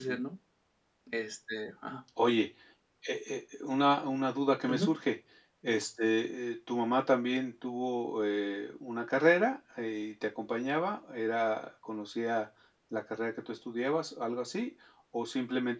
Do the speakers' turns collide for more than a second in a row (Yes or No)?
No